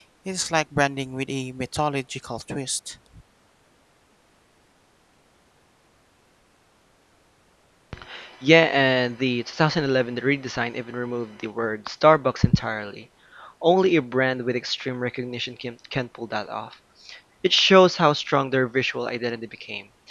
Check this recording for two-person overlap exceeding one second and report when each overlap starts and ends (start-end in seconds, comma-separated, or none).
none